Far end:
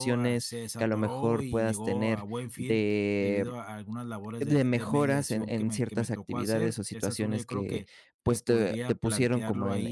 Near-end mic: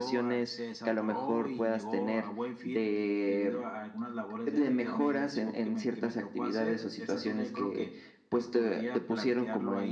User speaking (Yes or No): No